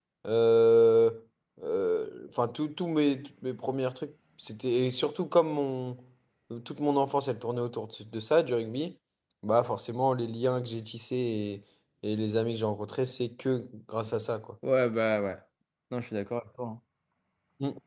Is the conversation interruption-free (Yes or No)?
Yes